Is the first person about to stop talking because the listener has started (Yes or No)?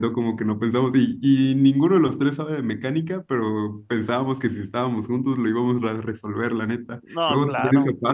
No